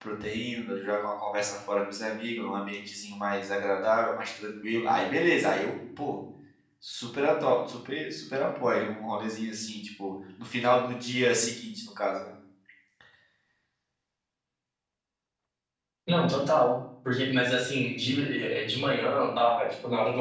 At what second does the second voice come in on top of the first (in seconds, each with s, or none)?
none